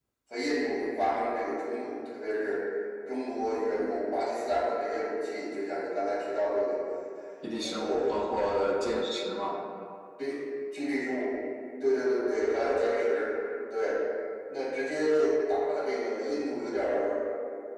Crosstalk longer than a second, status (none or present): none